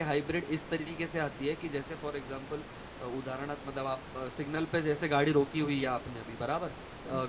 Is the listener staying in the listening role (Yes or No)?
Yes